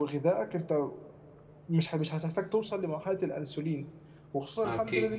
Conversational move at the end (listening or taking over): listening